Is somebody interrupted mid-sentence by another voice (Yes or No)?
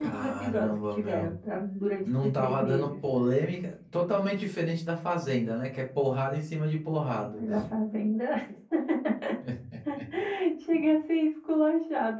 Yes